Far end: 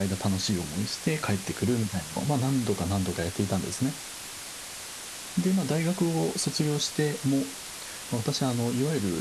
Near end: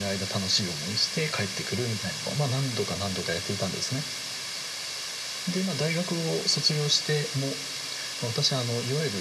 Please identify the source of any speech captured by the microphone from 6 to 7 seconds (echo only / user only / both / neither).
echo only